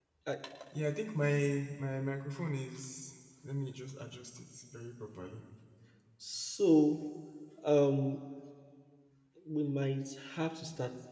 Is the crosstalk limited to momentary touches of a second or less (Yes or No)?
Yes